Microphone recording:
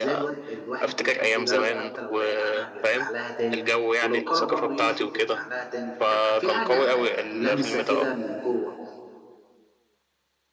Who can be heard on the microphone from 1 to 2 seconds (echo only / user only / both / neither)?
both